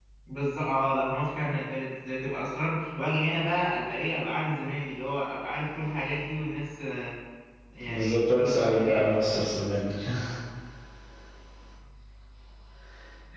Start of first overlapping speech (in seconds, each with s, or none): 7.8 s